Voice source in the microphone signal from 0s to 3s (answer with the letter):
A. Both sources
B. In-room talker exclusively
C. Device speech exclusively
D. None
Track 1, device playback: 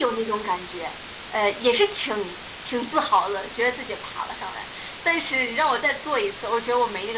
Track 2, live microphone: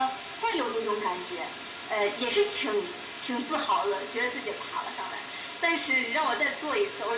C